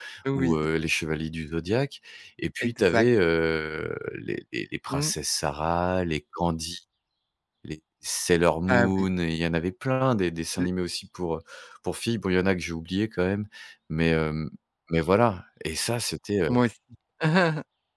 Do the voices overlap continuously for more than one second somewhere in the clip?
No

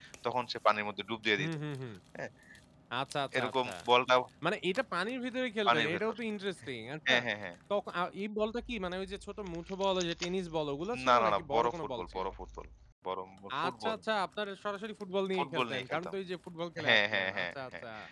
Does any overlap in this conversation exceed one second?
Yes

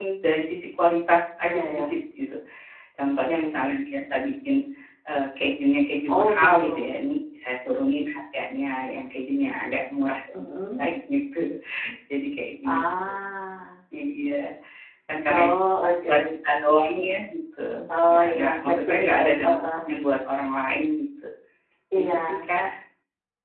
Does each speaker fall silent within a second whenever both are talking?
No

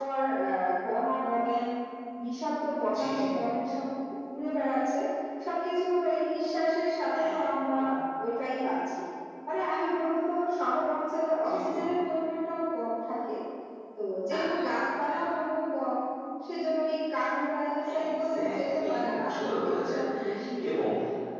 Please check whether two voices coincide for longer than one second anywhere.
Yes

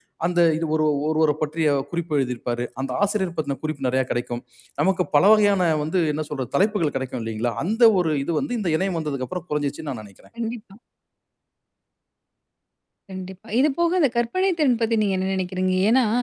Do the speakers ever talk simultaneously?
No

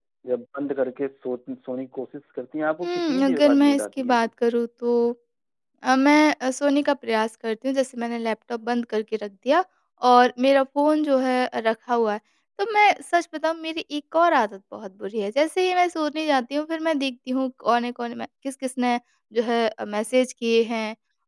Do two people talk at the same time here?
Yes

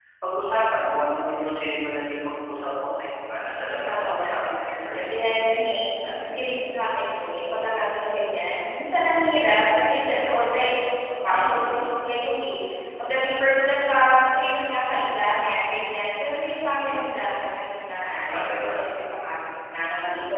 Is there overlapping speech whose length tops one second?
Yes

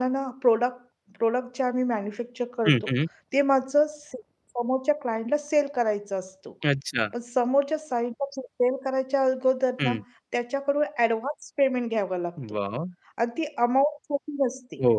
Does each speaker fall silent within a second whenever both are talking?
Yes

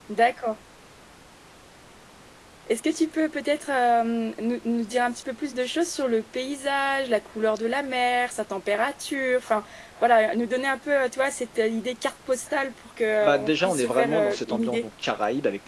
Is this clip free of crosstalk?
No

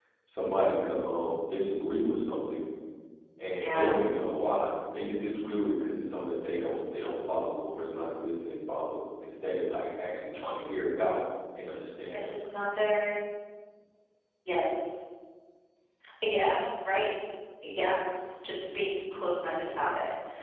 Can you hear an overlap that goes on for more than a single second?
No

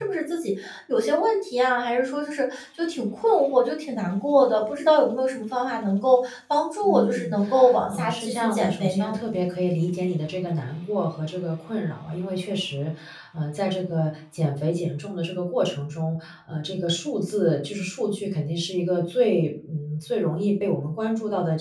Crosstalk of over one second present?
Yes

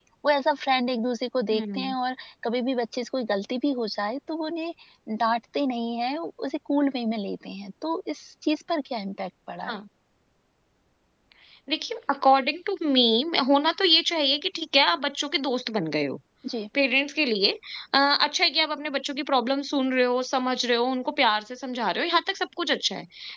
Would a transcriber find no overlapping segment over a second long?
Yes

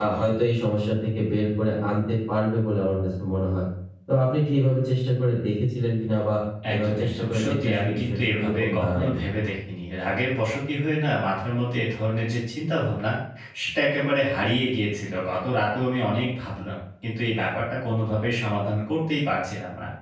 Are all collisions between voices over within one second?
No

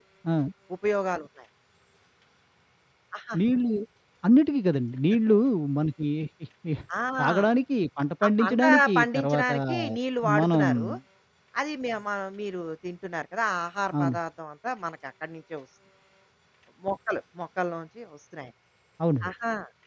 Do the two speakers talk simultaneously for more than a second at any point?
Yes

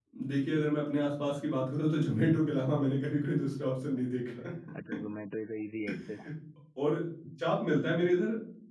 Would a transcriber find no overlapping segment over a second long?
Yes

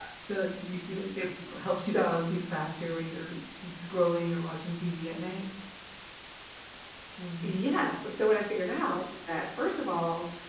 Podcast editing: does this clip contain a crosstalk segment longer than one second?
No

